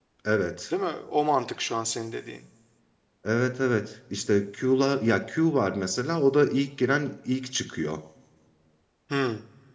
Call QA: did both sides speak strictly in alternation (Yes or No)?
Yes